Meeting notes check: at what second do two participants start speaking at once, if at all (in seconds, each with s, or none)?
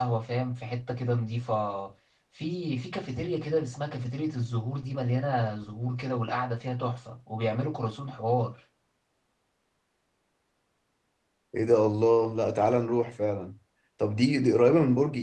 none